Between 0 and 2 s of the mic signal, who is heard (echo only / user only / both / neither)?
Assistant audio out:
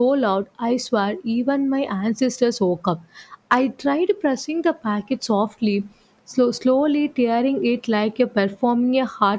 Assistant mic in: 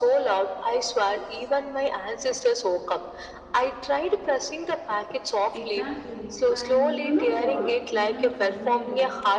echo only